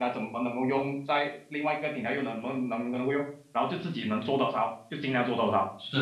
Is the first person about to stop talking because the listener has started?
Yes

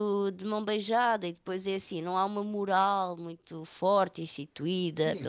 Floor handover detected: Yes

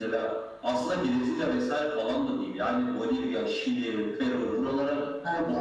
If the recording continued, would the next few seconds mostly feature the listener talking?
Yes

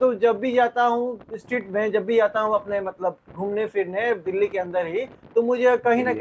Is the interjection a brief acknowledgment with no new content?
Yes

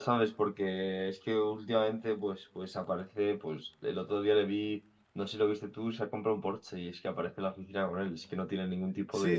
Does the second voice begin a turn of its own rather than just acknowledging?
Yes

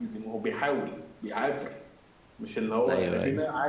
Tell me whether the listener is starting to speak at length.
No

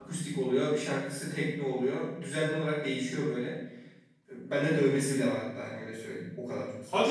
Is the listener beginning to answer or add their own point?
Yes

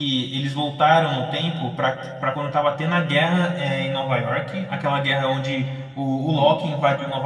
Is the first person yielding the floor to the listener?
No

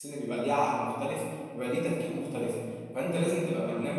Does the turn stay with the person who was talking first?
Yes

